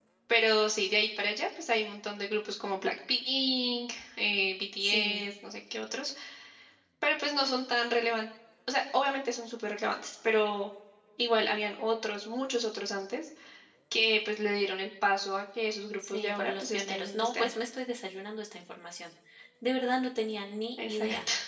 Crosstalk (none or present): present